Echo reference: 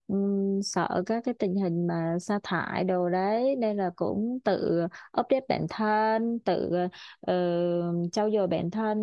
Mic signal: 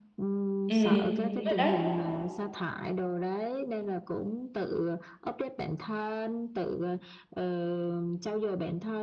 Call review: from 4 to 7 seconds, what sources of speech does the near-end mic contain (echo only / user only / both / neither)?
echo only